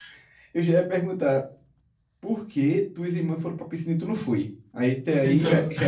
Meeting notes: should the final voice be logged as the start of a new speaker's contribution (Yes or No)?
No